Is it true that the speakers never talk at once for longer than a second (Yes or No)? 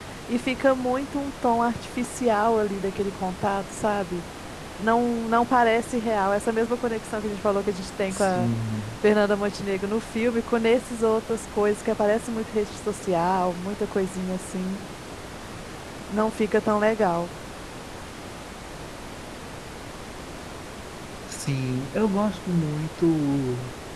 Yes